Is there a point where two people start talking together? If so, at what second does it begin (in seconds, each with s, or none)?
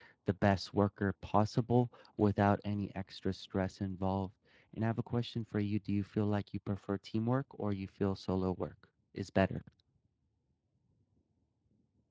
none